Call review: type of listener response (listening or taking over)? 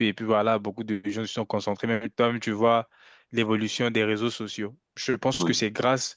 listening